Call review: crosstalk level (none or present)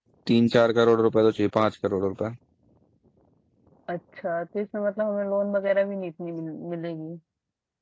none